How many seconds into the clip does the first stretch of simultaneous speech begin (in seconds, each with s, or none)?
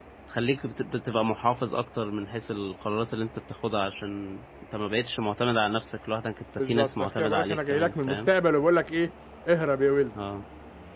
6.6 s